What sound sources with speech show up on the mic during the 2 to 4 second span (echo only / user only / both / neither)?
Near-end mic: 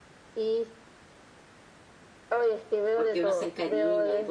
both